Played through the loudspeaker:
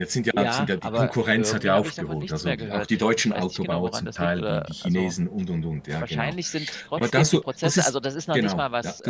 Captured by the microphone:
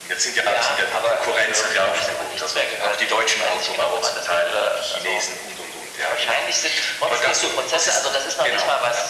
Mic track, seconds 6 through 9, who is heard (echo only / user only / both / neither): echo only